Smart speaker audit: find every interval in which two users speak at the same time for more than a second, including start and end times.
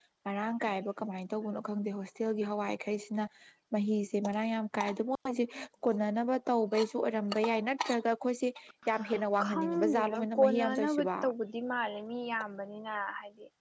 9.4-11.1

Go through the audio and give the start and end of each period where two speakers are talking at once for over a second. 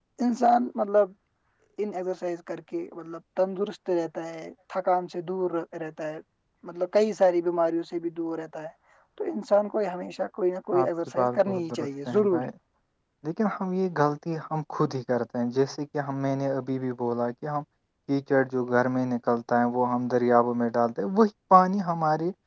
10.8-12.5

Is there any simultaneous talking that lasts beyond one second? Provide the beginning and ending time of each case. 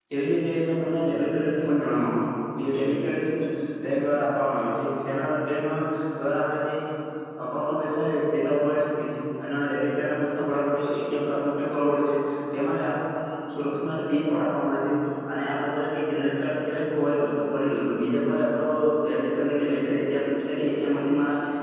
none

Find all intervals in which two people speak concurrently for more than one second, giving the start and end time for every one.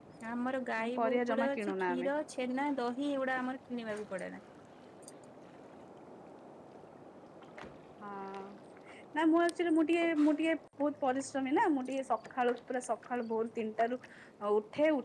0.8-2.1

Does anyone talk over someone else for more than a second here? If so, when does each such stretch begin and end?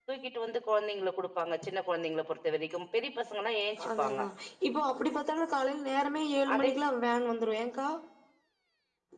none

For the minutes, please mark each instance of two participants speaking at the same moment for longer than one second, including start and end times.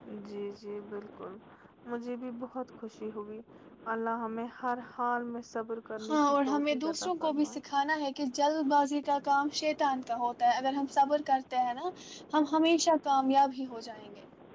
6.1-7.6

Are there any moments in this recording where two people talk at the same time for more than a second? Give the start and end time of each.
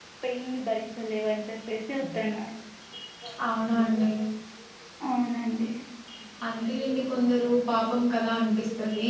none

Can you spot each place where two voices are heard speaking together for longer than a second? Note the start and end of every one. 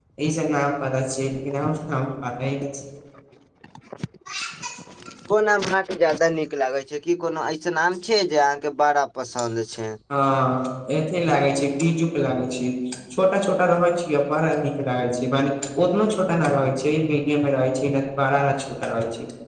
none

